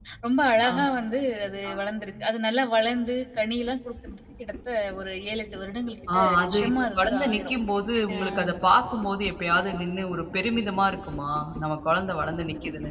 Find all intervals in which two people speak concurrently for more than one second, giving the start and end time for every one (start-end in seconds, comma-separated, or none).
6.1-7.5